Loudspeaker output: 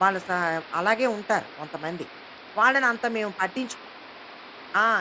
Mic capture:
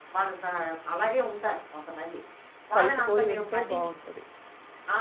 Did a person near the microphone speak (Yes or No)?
Yes